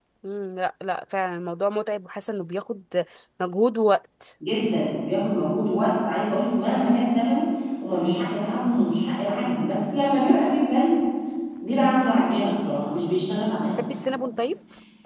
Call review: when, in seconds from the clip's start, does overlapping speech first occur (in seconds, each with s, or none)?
none